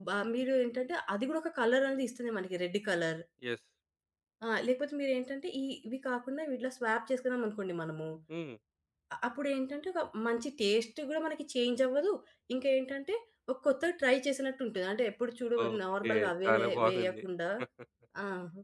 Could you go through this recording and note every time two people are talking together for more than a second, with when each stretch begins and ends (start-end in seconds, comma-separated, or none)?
15.7-17.2